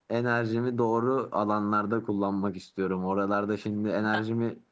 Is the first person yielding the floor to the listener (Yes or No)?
No